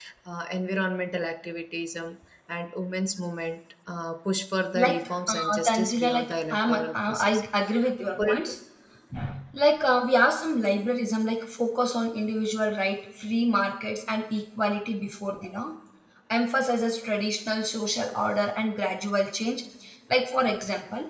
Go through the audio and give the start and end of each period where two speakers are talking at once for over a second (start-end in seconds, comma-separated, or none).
4.7-7.4